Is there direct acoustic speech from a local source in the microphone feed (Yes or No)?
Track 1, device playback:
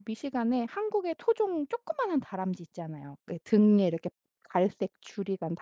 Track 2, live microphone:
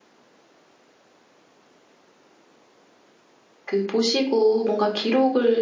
Yes